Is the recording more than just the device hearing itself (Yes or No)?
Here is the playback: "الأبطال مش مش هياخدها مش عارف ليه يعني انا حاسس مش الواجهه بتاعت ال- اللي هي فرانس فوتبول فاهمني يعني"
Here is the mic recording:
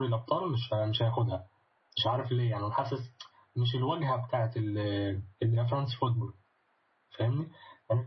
No